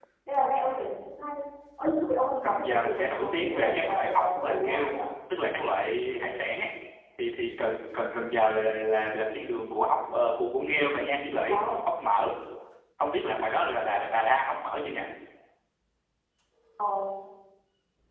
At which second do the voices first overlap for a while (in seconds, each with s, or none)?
2.4 s